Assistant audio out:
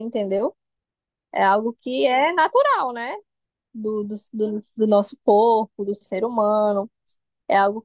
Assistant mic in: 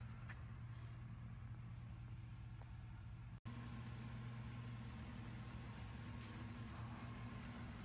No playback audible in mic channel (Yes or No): Yes